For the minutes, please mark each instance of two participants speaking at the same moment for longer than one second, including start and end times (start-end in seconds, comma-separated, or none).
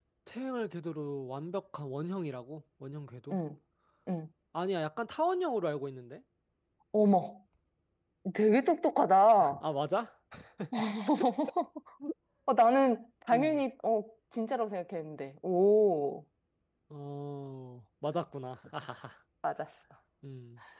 none